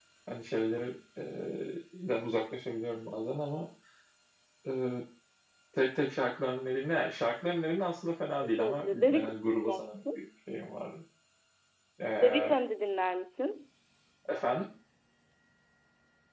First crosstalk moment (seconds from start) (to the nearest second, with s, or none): 8 s